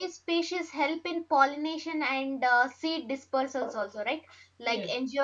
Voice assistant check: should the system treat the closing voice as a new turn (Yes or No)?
No